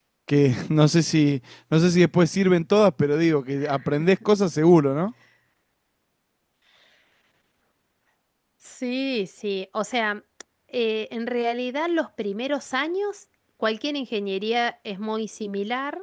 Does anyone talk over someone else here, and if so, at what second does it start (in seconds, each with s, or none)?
none